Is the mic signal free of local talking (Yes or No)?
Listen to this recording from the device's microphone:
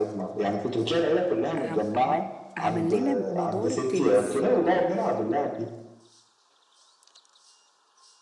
No